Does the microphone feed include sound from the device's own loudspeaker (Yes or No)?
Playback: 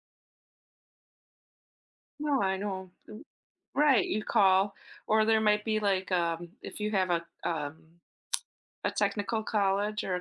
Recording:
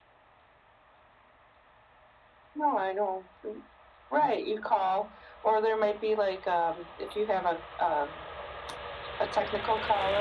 Yes